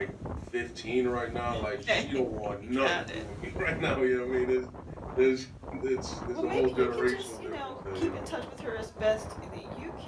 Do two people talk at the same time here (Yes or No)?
Yes